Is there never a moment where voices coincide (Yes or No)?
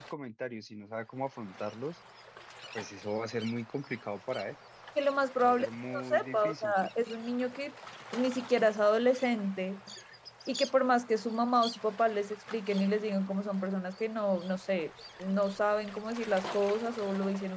No